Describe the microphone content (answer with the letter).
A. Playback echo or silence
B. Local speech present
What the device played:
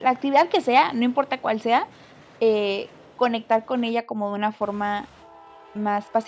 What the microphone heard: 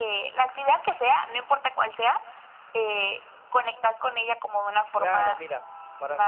B